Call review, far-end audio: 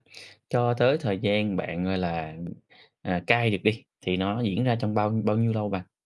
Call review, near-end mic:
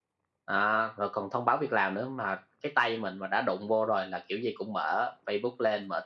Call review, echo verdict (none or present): none